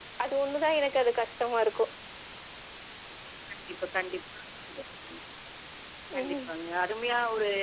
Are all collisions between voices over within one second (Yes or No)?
Yes